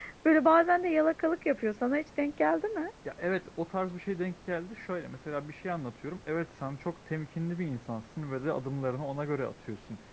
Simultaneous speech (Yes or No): No